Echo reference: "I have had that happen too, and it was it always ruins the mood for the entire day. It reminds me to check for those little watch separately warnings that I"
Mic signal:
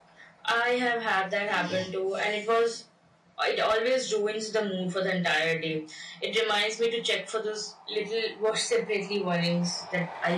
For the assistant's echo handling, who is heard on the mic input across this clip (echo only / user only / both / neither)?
echo only